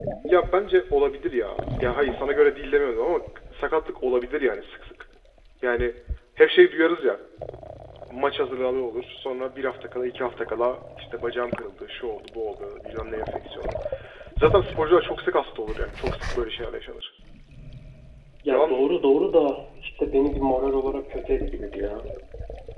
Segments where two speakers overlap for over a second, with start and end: none

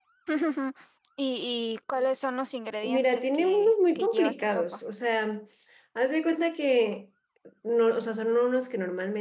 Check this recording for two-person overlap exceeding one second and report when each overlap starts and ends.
2.8-4.7

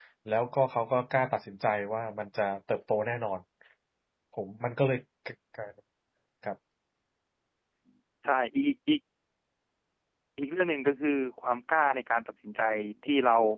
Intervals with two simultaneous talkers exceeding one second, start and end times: none

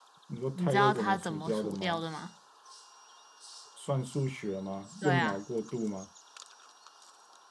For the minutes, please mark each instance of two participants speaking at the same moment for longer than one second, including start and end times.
0.6-2.0

